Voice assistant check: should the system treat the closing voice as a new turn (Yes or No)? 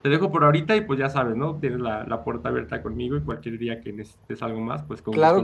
Yes